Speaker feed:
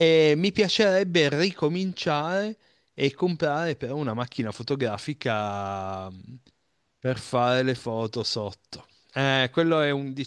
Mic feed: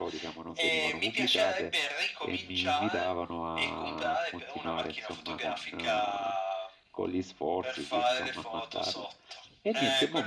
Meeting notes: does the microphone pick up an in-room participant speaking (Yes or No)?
Yes